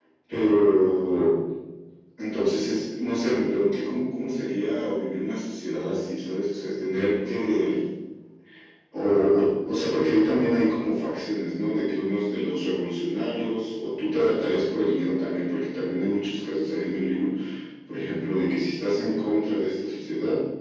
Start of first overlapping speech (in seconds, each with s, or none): none